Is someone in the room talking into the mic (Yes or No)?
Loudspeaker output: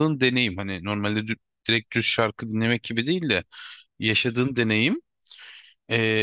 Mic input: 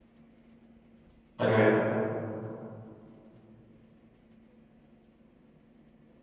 Yes